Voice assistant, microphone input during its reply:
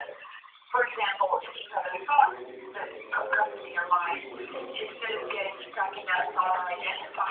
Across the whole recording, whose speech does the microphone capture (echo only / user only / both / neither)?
both